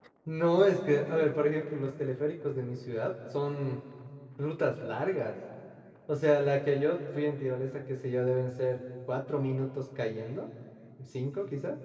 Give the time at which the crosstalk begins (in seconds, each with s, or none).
none